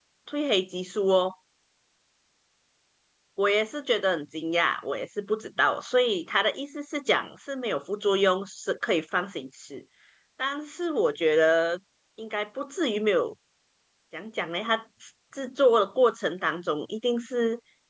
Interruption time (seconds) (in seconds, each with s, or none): none